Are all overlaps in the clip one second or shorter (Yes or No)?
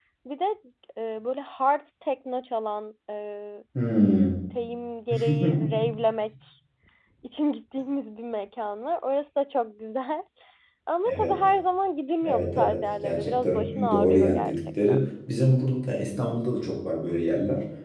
No